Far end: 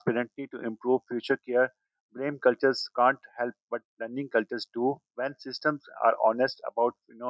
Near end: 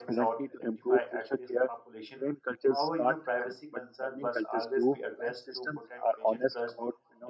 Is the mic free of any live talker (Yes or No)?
No